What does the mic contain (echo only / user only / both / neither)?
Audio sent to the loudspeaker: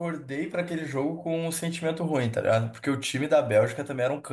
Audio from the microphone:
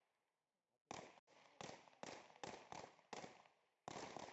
neither